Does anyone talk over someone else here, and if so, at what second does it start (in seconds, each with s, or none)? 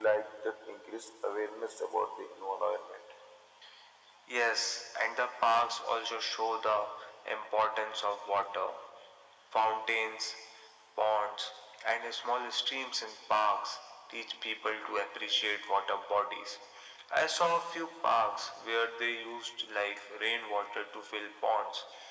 none